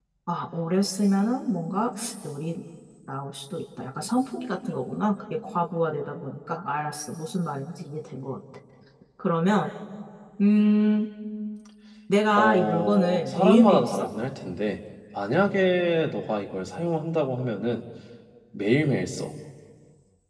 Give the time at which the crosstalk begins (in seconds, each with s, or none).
12.4 s